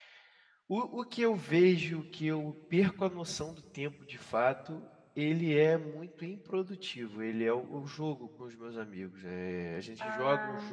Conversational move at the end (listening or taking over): listening